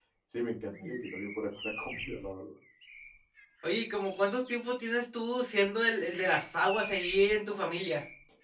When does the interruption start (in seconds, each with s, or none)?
none